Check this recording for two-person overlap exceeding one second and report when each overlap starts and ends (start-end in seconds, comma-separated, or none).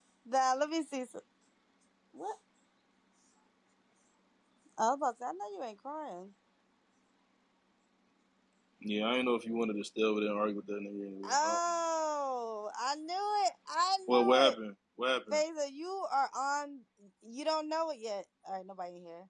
none